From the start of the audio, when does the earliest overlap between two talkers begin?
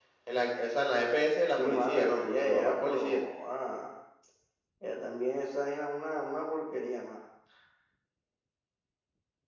1 s

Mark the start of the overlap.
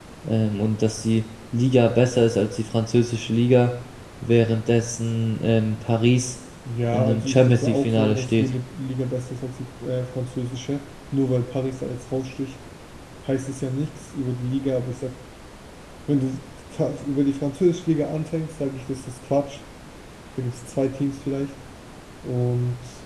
7 s

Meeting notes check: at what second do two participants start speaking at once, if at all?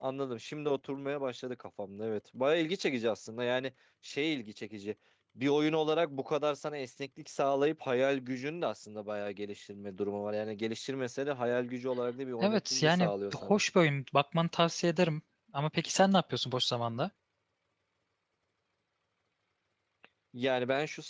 12 s

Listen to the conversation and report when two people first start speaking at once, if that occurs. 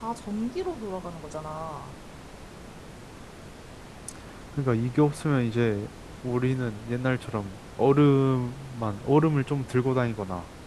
none

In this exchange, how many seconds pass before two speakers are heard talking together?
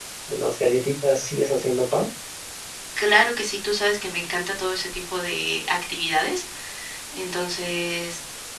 none

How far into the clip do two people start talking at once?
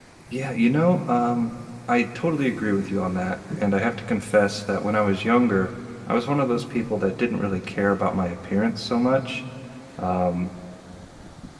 none

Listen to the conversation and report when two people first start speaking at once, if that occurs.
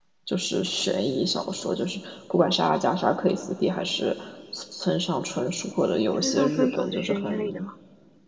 6 s

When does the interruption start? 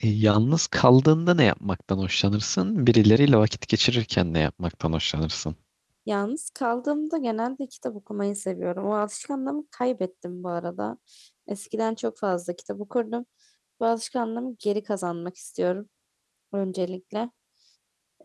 none

